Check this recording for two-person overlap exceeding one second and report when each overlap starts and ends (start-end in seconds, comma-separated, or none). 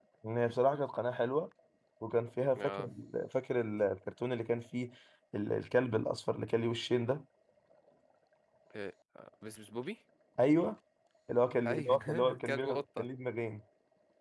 11.7-13.1